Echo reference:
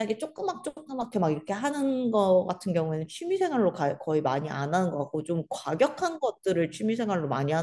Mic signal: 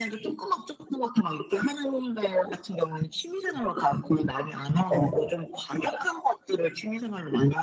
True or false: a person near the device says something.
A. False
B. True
B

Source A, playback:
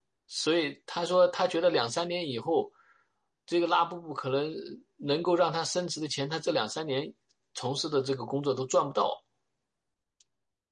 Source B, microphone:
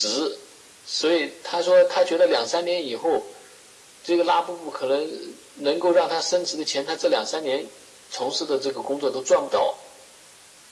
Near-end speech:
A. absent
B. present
A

